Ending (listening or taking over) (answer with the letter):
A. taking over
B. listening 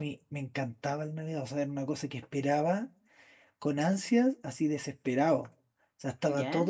B